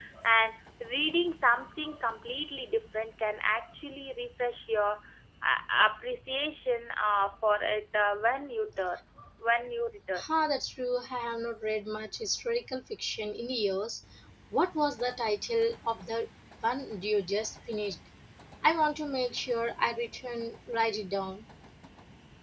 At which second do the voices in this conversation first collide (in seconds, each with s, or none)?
none